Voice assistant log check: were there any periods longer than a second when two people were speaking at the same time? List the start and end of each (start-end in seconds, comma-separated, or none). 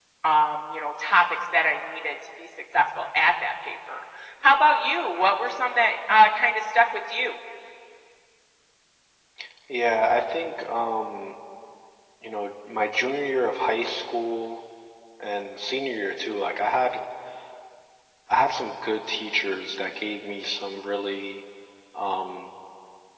none